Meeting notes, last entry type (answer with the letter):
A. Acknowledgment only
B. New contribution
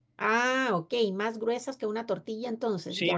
B